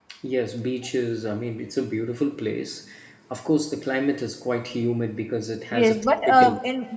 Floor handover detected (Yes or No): Yes